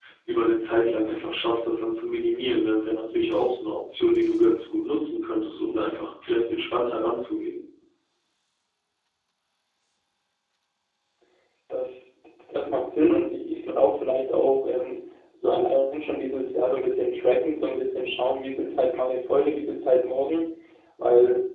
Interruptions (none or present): none